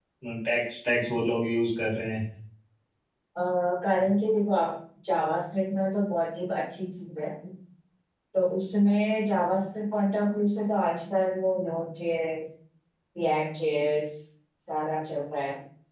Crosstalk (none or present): none